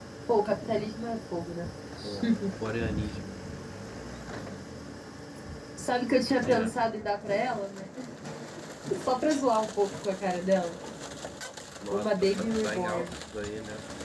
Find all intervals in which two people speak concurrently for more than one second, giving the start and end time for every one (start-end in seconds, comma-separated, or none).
11.9-13.1